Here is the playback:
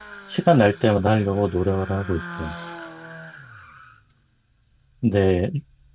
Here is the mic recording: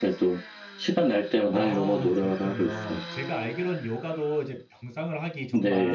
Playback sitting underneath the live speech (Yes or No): No